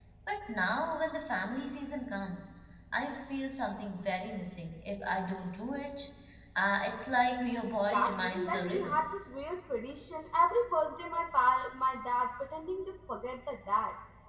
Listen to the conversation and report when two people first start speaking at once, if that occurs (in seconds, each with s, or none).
7.6 s